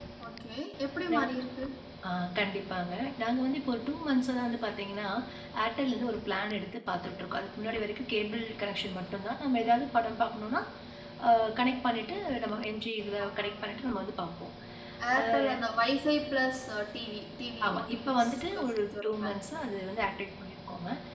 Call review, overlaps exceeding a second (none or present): present